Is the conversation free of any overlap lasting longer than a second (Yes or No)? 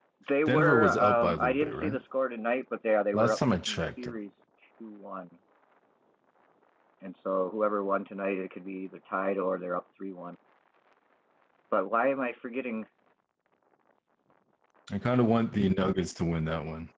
No